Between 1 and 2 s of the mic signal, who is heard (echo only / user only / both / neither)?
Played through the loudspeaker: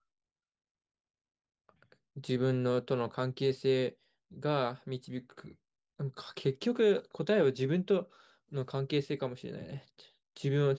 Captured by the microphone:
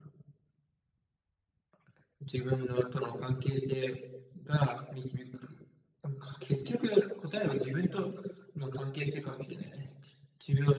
neither